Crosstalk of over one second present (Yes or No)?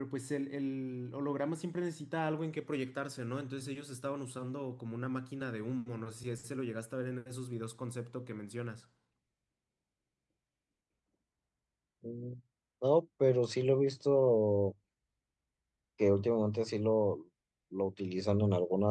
No